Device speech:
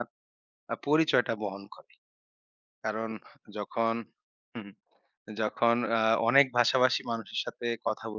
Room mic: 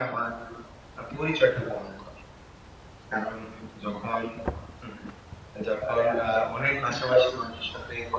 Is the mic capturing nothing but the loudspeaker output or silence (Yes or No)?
Yes